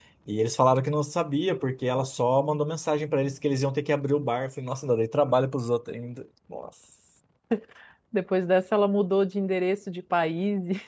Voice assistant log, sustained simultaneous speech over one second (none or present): none